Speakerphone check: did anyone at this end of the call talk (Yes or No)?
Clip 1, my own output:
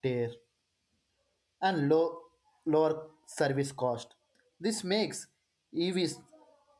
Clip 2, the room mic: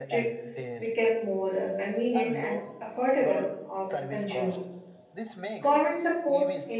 Yes